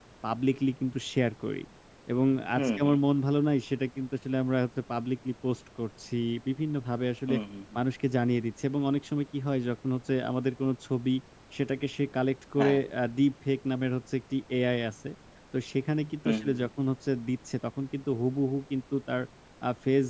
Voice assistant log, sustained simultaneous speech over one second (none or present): none